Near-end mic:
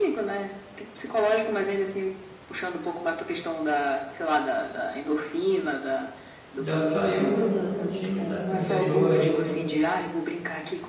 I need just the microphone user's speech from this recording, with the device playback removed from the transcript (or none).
já saiu com, com o time, né, pro interior aí